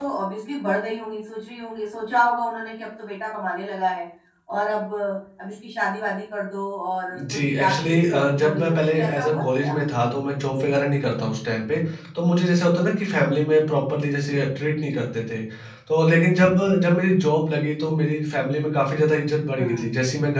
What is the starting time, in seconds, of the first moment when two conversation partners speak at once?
7 s

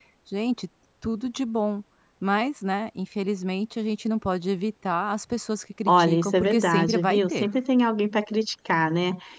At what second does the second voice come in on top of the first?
6 s

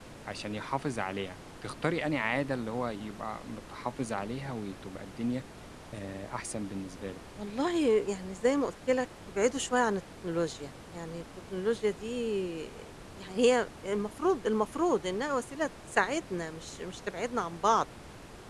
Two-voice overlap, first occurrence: none

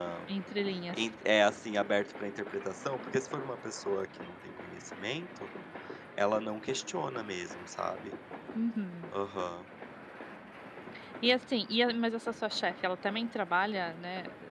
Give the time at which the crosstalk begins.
none

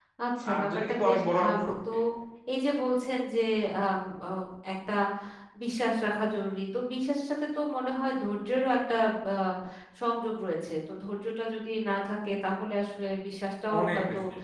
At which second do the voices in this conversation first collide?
1 s

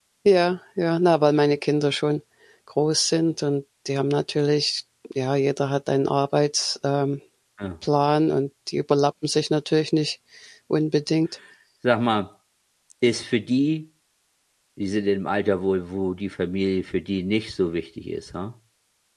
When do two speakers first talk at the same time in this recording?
none

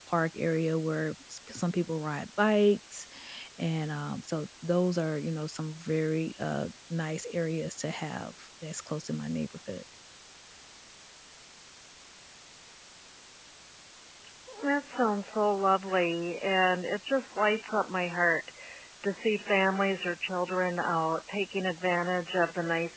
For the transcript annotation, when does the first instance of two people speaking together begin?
none

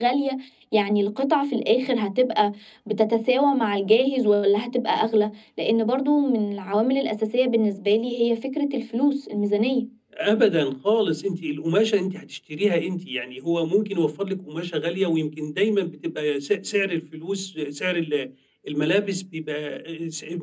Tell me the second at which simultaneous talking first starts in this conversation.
none

